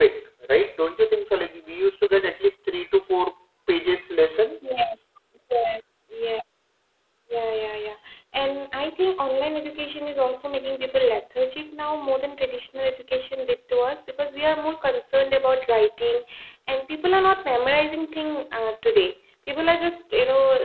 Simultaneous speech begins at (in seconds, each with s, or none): none